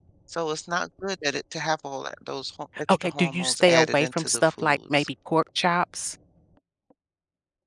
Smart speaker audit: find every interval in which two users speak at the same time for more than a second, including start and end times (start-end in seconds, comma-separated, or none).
2.9-5.1